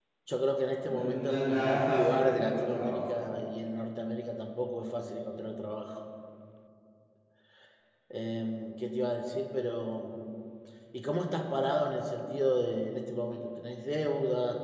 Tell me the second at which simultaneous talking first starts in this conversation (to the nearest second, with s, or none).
1 s